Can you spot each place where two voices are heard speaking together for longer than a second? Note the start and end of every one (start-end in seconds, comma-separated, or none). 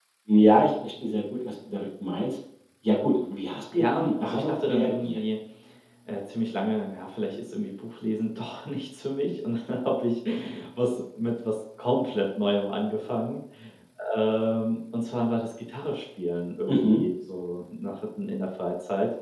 3.8-5.2